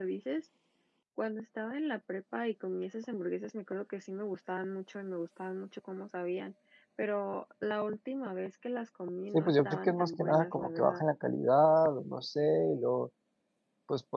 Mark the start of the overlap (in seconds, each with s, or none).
9.3 s